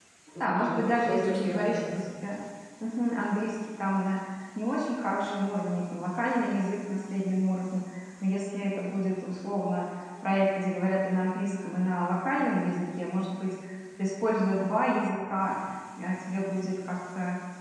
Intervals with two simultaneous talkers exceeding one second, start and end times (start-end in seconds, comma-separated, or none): 0.6-2.1